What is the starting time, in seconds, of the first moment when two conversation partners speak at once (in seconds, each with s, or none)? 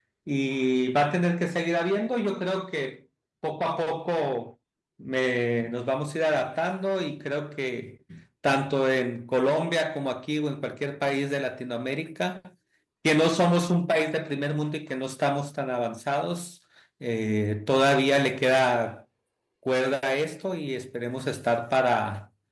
none